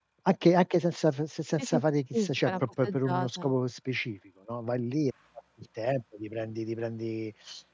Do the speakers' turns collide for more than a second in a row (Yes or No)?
Yes